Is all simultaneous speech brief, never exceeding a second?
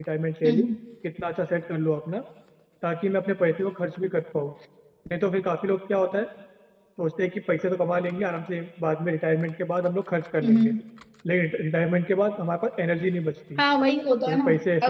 Yes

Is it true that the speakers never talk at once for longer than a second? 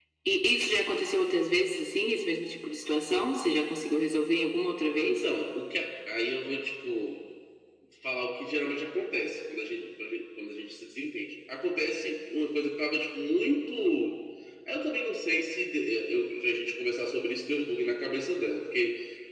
Yes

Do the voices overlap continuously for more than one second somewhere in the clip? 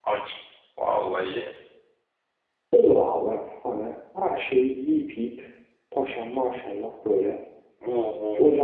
No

